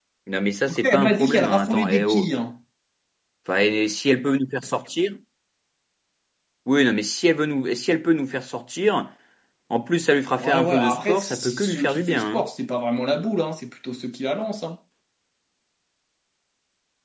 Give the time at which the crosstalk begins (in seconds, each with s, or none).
0.7 s